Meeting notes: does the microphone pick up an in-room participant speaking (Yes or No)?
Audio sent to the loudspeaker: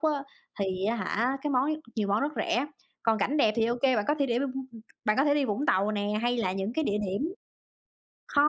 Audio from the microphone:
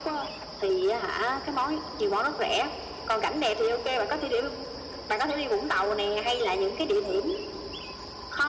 No